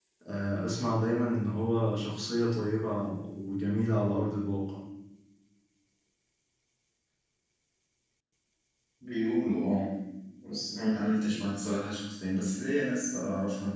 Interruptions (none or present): none